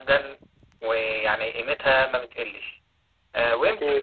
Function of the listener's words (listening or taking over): listening